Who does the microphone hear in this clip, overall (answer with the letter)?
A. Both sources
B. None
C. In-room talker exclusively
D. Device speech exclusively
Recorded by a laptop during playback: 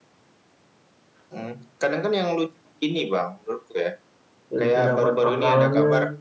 A